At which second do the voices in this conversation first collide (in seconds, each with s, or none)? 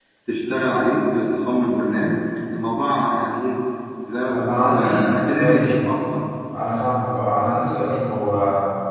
4.3 s